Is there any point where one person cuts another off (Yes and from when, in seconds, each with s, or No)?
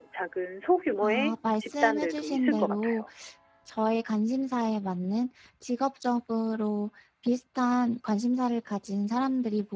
Yes, from 1.0 s